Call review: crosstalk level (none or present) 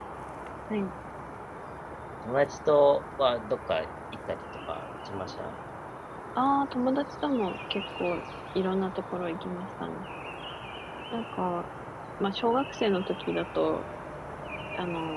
none